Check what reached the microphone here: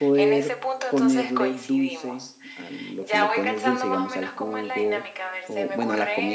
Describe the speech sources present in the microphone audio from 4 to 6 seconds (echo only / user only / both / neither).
both